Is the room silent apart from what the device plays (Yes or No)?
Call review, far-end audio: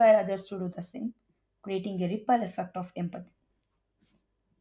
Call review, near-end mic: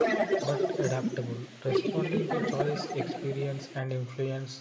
No